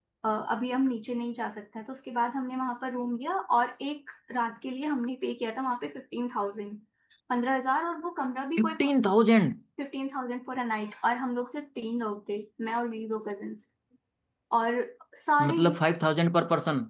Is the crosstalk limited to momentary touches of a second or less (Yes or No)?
Yes